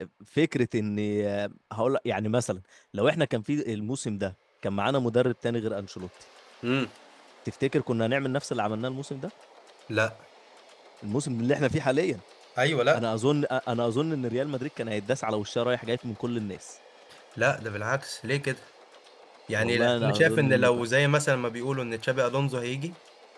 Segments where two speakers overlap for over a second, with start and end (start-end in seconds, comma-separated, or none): 19.6-20.8